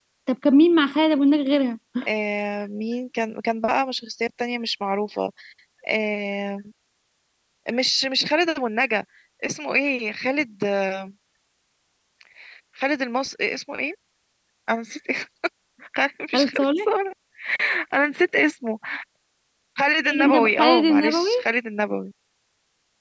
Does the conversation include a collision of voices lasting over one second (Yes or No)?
Yes